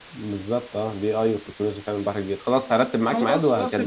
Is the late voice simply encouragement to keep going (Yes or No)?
No